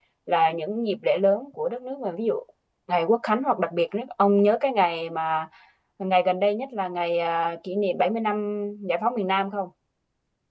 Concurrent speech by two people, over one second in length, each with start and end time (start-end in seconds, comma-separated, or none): none